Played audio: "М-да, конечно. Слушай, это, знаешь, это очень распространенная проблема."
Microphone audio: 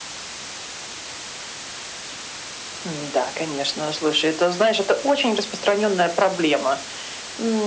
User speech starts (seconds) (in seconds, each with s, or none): none